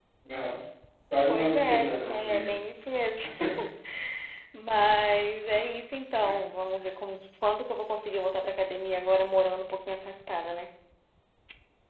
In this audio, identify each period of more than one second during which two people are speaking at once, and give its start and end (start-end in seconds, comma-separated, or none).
1.3-2.5